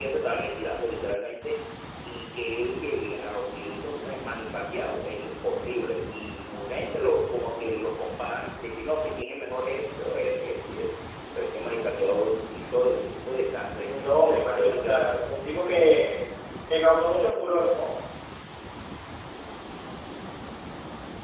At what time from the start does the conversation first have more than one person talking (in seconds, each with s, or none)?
13.9 s